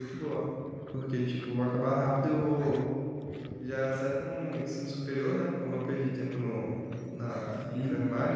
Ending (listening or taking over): listening